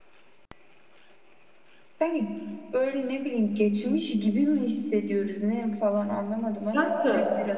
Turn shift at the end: Yes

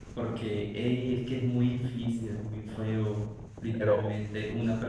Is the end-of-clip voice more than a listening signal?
No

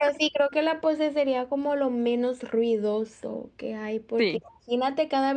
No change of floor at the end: Yes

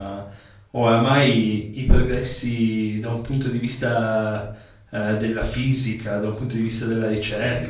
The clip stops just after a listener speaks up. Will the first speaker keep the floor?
Yes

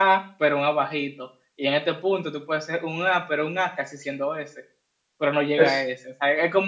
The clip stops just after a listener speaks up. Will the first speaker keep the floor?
Yes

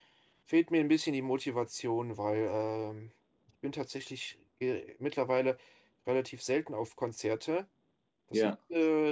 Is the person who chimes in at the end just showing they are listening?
Yes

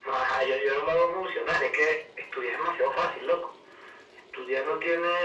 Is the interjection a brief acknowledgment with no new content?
Yes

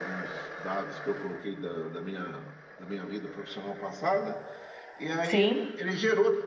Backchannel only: Yes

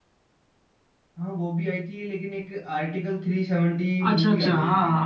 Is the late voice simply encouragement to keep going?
No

